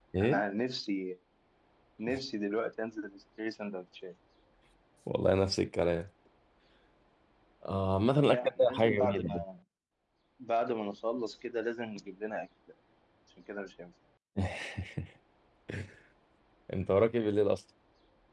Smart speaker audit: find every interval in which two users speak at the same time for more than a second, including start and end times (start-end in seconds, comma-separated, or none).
8.2-9.4